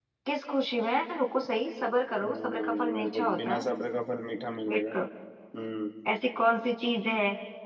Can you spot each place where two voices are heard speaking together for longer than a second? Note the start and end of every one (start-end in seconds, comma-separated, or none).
2.2-3.7